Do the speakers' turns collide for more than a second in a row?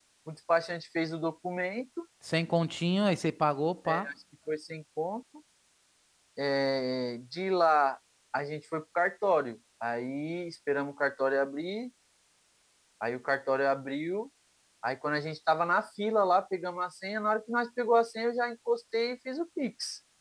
No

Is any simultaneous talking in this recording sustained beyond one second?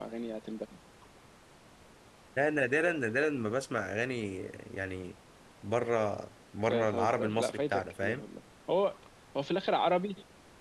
Yes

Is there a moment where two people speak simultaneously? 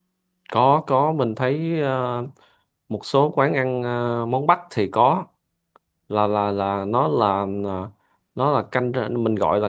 No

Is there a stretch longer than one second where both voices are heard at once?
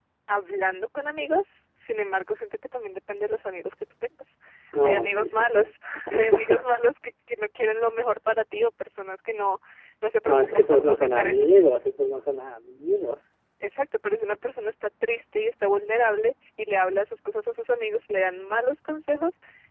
Yes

